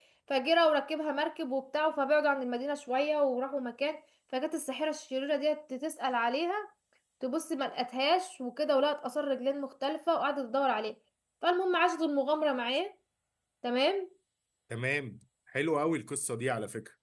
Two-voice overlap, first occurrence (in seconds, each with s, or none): none